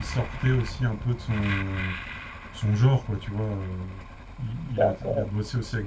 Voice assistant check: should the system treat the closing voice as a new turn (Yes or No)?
No